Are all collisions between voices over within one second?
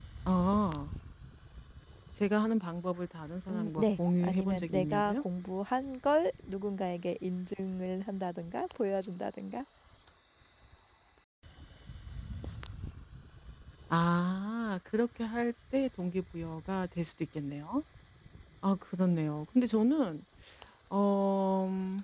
No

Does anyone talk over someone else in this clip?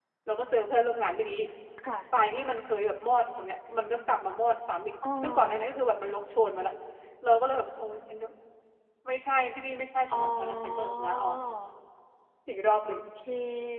Yes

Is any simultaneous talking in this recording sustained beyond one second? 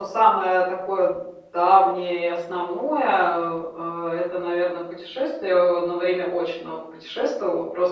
No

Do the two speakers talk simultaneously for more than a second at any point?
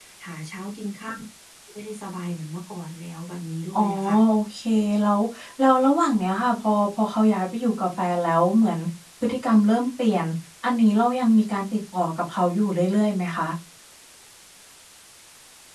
No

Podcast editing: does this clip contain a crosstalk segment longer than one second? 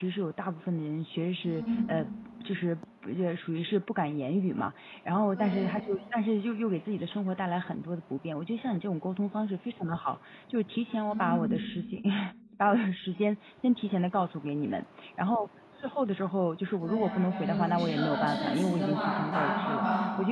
Yes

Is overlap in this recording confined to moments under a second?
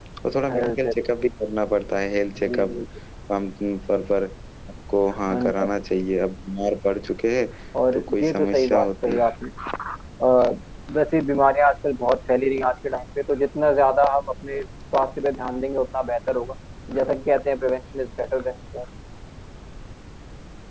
No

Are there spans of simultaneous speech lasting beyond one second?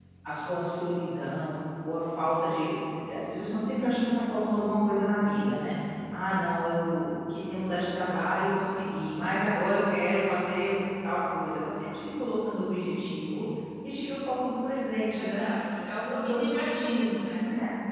Yes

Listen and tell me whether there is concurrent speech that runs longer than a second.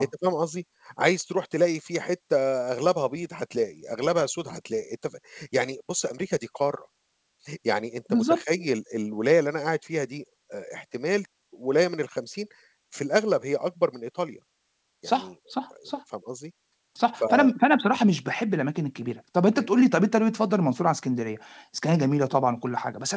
No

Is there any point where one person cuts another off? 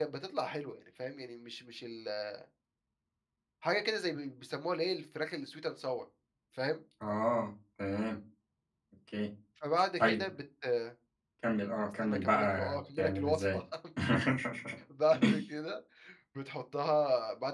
Yes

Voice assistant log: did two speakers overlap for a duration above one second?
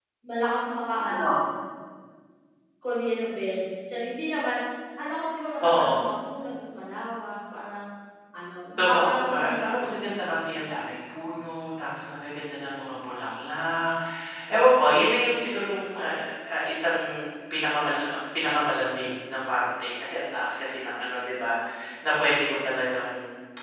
Yes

